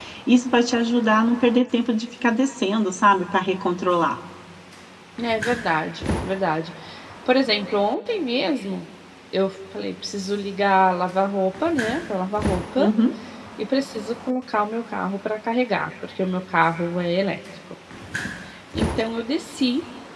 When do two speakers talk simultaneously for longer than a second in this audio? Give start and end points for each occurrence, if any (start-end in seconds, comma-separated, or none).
none